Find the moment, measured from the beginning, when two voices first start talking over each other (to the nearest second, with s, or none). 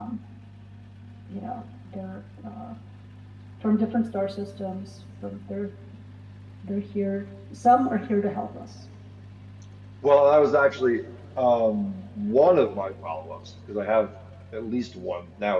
none